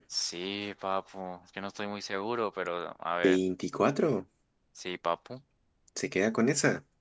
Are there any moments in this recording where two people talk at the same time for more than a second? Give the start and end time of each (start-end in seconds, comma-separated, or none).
none